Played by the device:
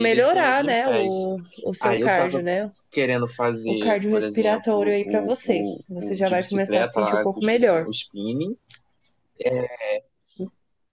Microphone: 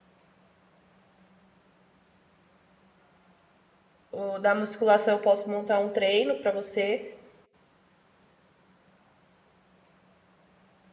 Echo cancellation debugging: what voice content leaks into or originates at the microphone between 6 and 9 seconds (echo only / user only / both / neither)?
user only